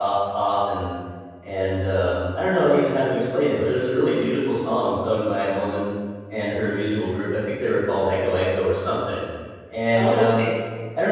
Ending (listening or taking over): listening